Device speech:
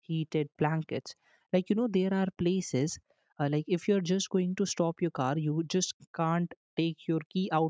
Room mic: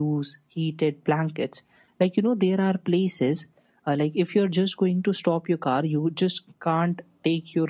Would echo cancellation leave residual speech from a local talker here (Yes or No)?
No